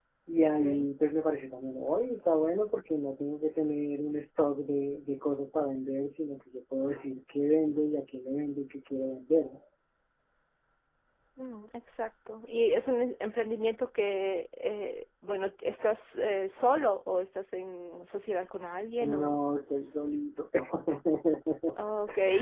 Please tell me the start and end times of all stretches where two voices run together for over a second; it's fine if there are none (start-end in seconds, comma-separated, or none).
none